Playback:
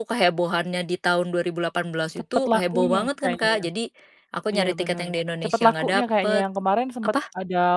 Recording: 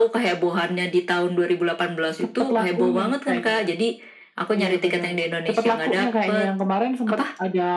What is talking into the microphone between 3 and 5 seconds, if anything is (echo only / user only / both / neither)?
echo only